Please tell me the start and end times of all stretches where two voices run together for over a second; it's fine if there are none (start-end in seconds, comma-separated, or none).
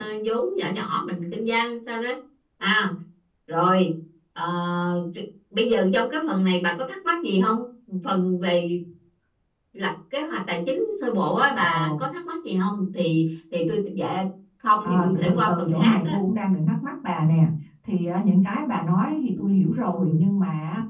14.8-16.2